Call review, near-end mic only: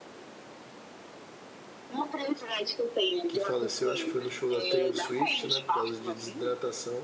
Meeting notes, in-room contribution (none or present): present